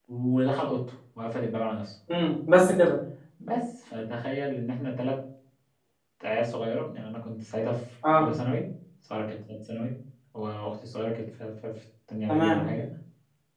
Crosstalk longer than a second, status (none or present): none